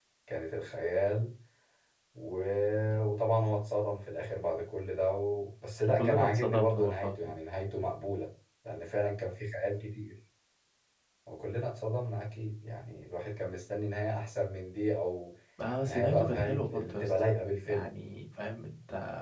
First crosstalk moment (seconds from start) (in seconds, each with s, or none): 5.9 s